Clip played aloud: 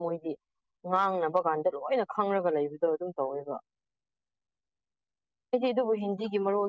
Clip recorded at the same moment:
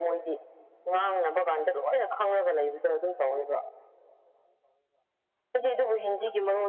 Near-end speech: none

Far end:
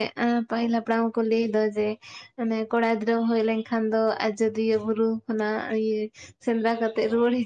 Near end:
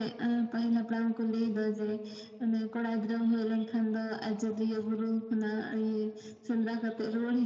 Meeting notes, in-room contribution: none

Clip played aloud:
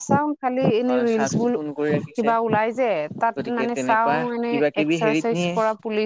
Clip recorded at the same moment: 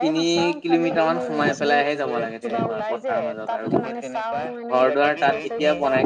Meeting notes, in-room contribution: present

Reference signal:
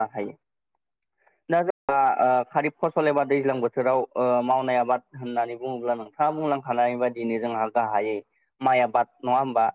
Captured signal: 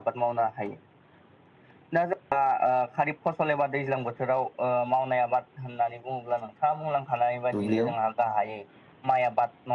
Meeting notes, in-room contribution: present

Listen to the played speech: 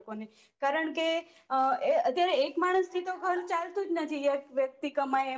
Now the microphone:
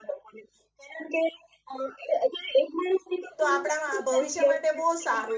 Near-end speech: present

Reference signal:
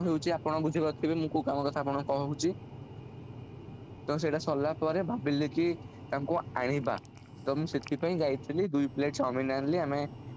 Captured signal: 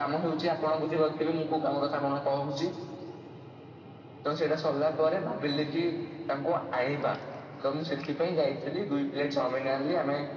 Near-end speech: none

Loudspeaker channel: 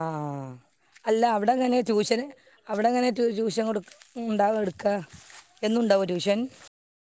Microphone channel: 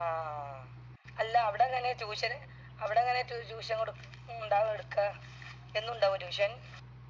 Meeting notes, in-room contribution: none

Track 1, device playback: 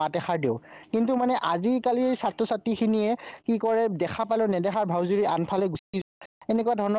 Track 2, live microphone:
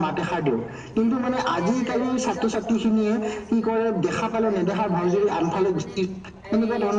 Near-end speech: present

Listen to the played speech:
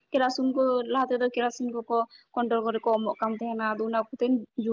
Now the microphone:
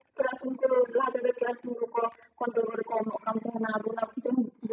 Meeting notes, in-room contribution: none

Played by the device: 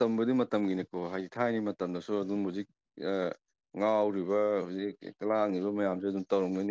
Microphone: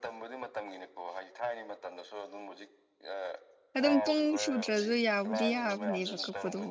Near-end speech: present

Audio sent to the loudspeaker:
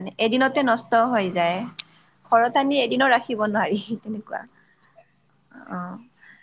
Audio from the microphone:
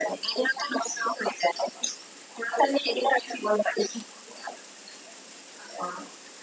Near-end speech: none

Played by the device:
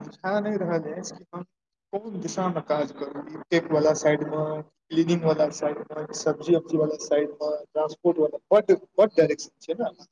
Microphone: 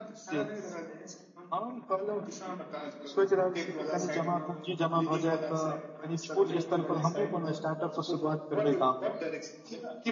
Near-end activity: present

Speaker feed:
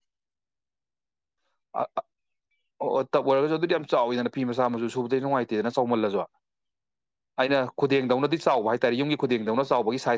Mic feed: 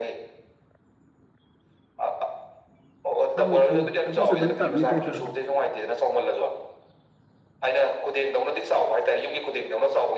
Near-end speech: present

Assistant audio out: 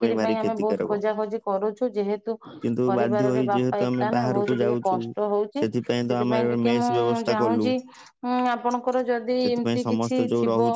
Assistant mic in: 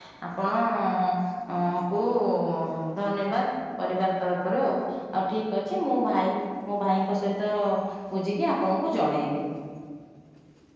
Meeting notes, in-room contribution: present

